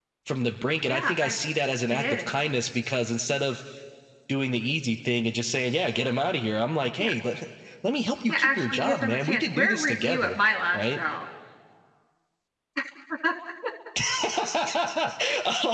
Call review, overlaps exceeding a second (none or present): present